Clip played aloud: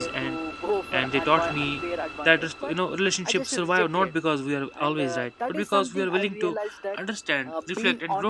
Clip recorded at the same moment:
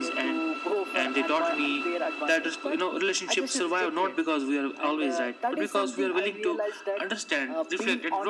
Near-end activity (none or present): none